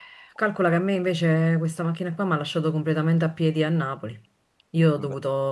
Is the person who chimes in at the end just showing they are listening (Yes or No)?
Yes